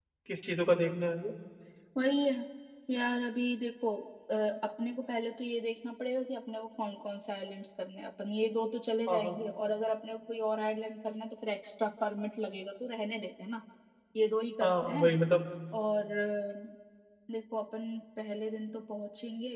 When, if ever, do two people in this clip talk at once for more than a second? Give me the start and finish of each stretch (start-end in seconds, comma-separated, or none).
none